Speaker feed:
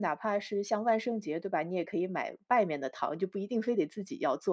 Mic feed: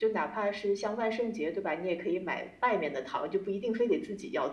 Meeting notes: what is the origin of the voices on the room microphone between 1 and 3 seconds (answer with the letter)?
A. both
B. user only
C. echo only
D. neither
C